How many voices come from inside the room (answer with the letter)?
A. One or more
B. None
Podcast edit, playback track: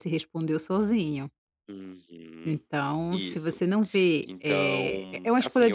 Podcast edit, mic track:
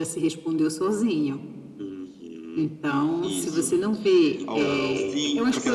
A